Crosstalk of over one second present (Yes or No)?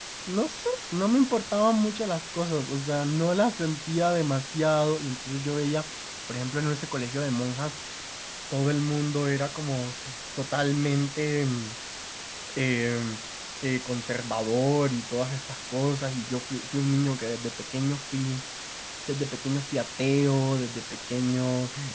No